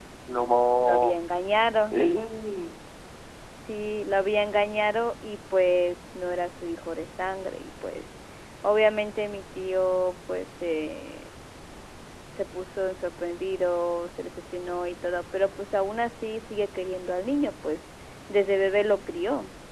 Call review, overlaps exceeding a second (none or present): none